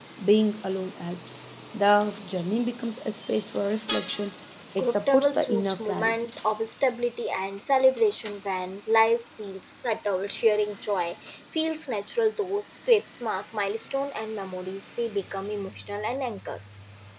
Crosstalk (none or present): present